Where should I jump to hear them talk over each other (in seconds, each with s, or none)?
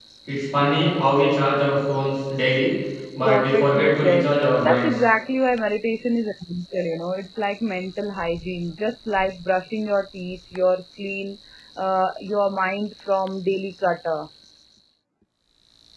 3.2 s